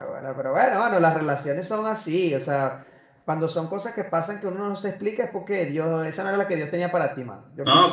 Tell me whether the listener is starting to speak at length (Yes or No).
Yes